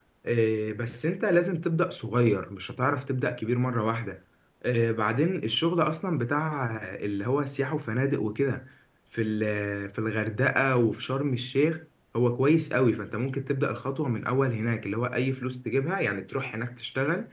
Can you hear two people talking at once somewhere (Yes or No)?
No